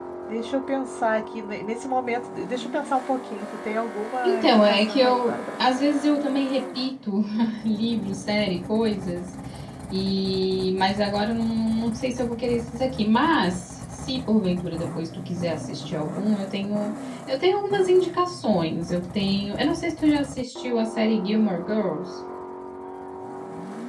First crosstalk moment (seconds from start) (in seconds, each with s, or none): 4.2 s